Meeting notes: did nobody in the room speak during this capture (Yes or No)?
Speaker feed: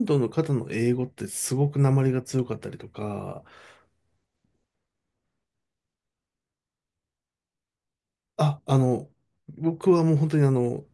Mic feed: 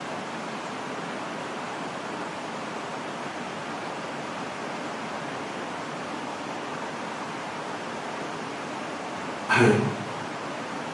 No